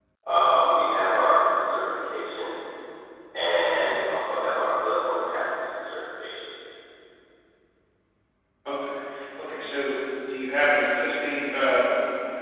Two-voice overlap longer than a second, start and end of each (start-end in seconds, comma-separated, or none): none